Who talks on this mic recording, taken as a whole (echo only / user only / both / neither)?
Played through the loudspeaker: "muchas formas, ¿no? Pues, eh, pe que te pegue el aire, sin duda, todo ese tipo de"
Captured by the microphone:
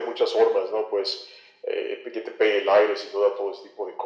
echo only